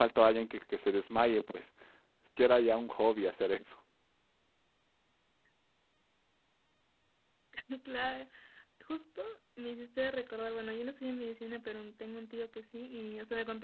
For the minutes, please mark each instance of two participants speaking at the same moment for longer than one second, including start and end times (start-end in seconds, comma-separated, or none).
none